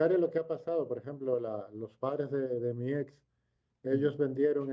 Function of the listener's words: listening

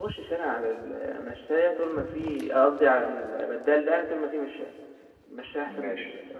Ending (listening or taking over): taking over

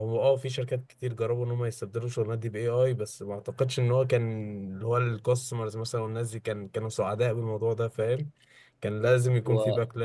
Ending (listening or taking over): listening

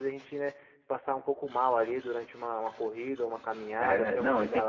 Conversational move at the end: taking over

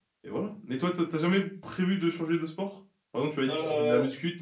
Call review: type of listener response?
listening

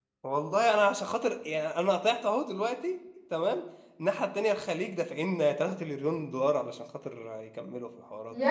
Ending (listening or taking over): taking over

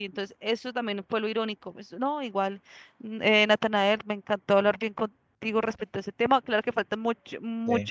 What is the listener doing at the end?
listening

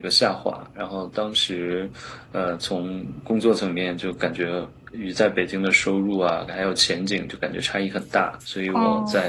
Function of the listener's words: listening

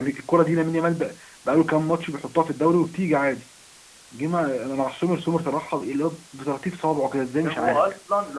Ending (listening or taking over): taking over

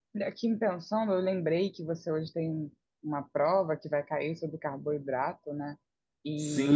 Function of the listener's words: taking over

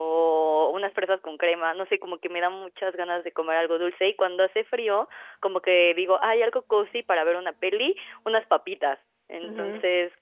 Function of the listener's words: listening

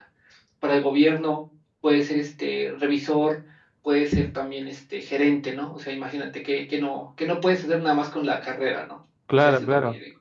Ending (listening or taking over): taking over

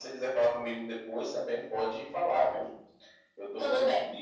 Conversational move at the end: listening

